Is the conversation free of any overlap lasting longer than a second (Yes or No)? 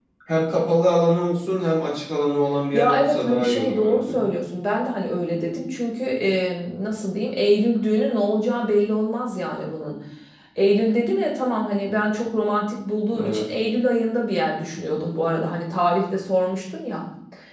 No